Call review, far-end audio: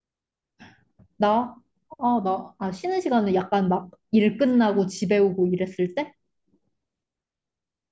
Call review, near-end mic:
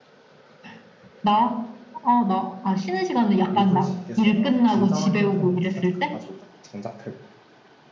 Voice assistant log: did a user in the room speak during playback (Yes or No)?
Yes